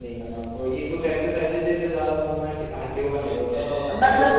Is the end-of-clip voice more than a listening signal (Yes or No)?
Yes